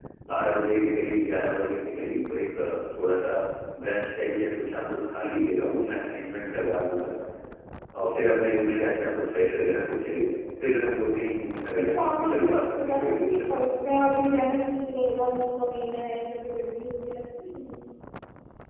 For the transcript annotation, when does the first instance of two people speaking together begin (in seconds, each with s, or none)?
11.8 s